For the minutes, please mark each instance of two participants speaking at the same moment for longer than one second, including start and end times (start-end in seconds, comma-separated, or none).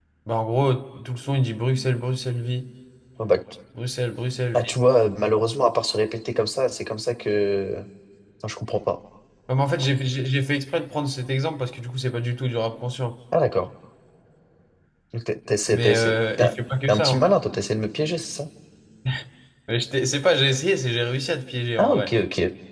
none